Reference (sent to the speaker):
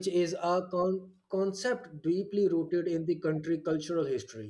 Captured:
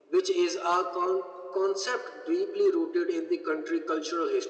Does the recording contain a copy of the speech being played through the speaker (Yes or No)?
Yes